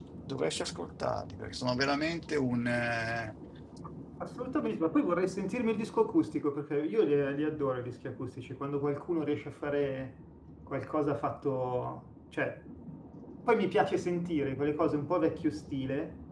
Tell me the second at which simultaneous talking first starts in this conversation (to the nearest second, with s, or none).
none